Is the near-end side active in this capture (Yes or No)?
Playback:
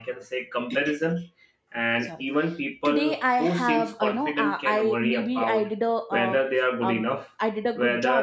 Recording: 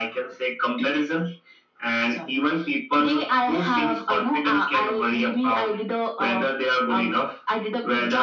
No